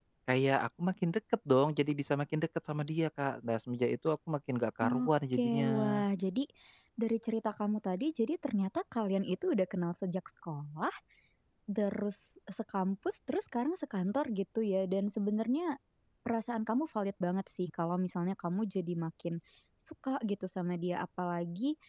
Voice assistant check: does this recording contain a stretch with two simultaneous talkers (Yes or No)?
Yes